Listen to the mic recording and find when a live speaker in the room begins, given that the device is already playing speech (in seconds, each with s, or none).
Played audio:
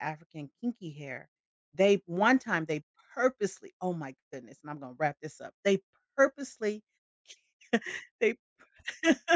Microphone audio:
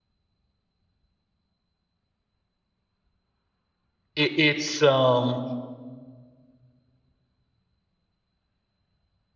4.1 s